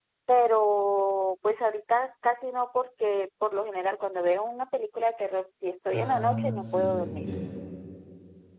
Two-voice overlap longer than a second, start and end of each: 5.9-7.3

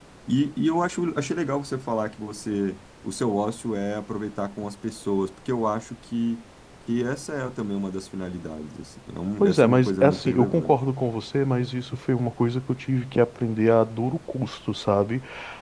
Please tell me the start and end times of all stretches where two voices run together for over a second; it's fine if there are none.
9.4-10.8

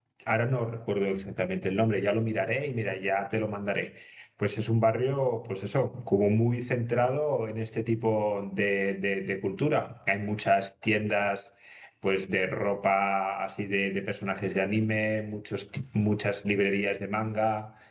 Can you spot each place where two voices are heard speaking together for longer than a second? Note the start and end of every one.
none

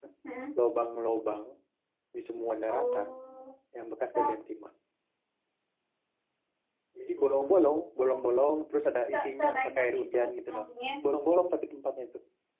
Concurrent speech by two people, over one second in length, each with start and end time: 9.1-10.6

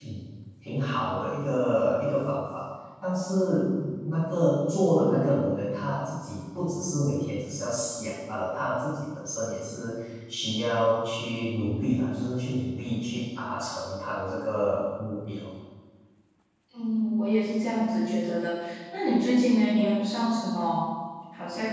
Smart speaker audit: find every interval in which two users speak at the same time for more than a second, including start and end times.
none

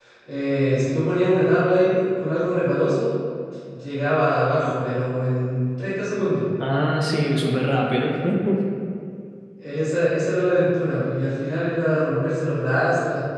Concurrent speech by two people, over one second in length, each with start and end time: none

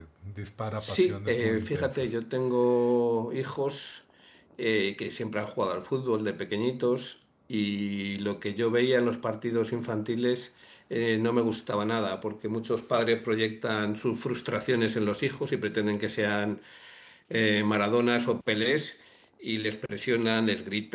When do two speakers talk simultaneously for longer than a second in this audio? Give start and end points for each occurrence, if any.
0.8-2.1

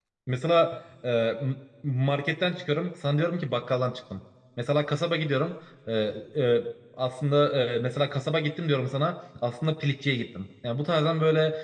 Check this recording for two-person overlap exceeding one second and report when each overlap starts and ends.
none

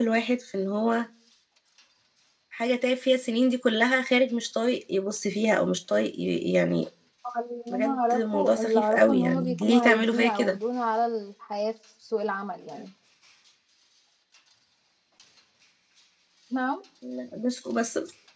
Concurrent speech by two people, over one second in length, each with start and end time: 7.7-10.6

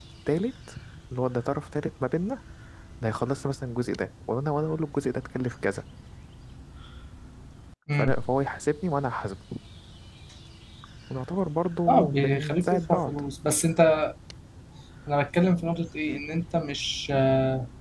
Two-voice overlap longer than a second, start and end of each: 11.9-13.1

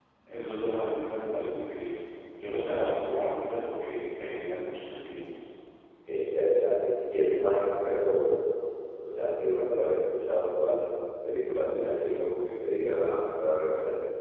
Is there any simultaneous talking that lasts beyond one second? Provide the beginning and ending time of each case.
none

